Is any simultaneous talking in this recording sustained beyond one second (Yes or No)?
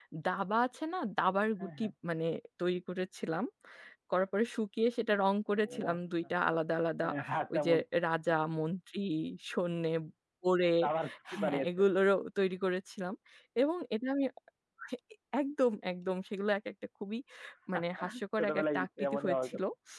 Yes